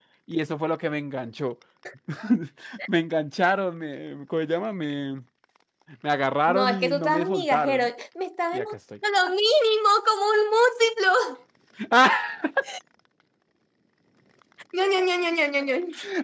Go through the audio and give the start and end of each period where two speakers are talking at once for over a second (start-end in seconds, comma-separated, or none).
6.5-7.9